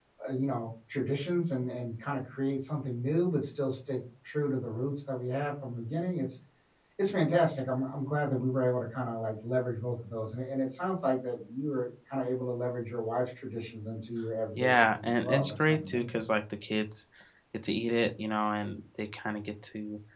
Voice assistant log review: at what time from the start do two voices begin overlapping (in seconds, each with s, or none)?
14.6 s